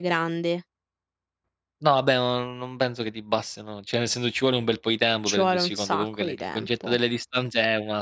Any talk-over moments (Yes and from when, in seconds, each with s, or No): Yes, from 5.3 s